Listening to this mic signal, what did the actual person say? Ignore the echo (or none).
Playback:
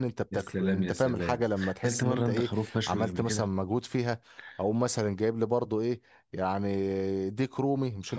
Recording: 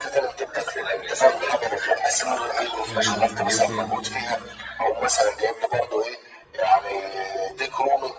حلو وإيه تاني؟